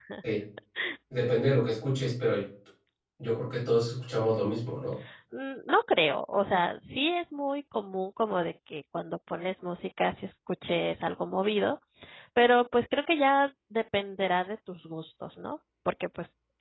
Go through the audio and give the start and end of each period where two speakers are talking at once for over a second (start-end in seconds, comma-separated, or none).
none